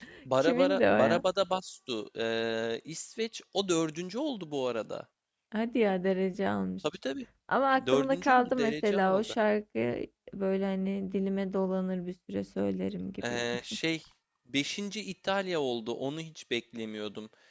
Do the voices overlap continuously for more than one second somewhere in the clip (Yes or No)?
Yes